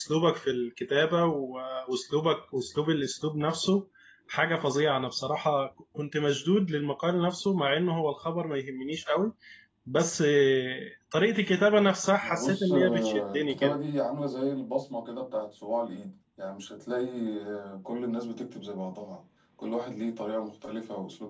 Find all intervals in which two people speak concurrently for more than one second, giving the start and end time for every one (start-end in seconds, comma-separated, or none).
12.2-13.8